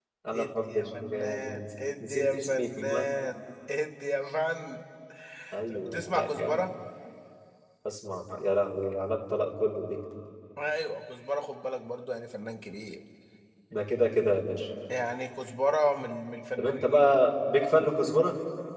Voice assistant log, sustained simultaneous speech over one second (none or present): present